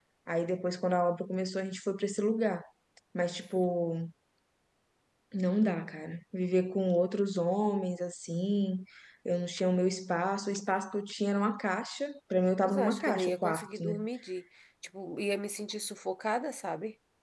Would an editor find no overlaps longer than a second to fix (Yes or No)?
No